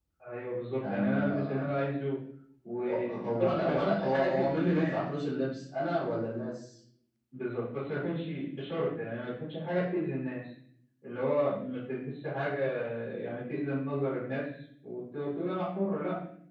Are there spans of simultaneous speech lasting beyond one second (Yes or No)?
Yes